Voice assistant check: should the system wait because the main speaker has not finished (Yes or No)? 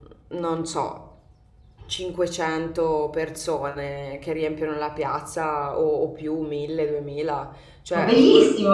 No